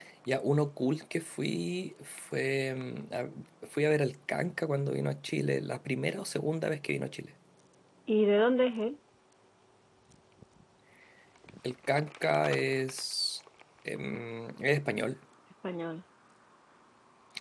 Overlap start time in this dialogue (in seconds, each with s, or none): none